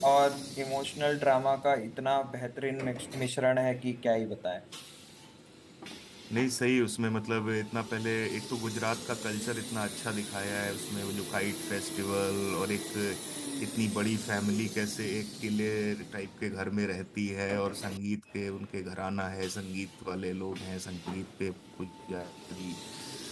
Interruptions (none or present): none